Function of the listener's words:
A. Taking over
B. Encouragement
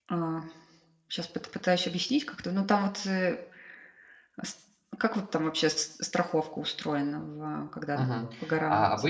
A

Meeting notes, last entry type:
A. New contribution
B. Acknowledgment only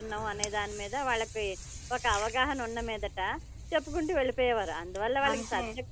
B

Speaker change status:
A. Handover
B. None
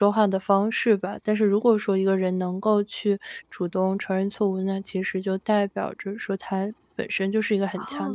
A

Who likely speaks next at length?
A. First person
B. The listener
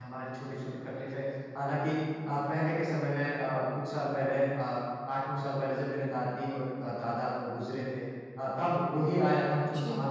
A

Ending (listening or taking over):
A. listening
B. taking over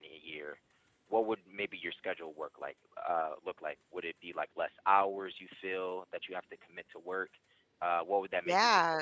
B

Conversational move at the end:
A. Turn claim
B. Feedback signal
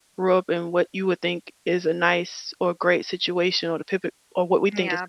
A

